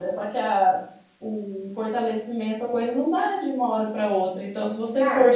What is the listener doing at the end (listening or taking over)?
listening